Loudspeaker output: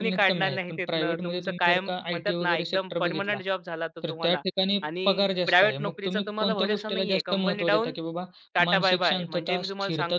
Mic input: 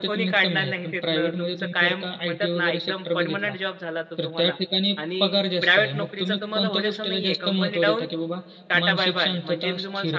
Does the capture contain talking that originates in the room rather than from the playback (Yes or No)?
No